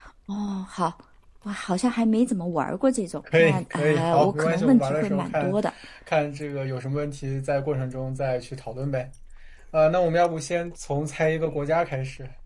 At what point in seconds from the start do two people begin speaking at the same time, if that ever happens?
3.3 s

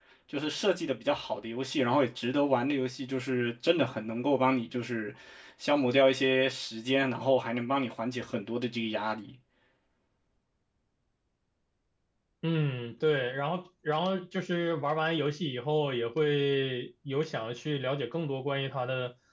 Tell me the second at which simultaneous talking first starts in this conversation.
none

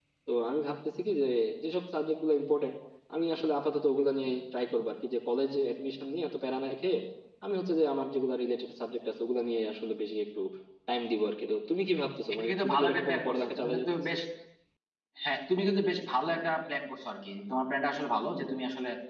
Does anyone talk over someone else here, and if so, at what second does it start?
12.3 s

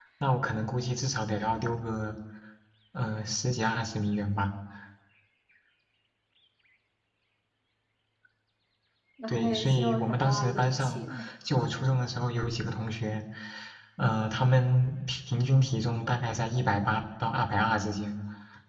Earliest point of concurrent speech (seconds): 9.3 s

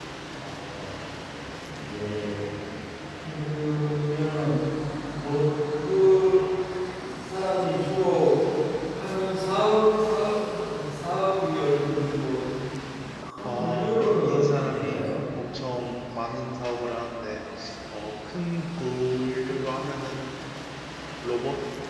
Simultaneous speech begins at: 13.4 s

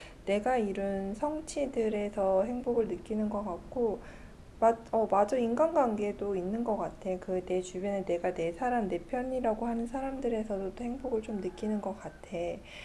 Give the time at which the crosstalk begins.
none

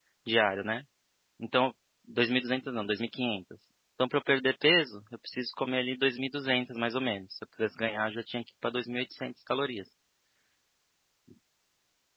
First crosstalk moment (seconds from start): none

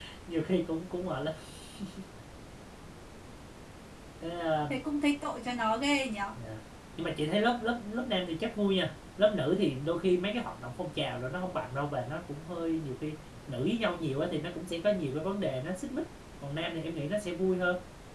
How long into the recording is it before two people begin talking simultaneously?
none

